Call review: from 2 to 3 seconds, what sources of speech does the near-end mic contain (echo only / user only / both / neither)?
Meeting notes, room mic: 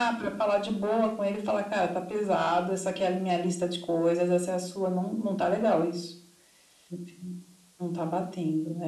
echo only